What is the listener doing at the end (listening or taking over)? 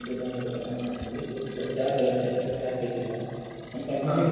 listening